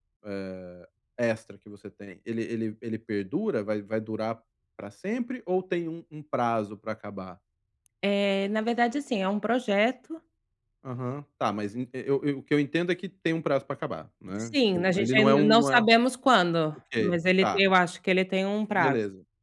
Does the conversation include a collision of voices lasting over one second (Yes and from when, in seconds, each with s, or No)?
Yes, from 14.5 s